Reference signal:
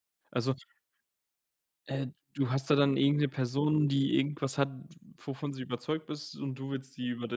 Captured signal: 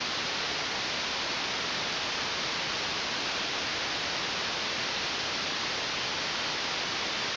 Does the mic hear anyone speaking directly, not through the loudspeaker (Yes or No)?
No